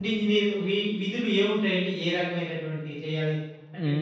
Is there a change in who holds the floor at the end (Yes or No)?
Yes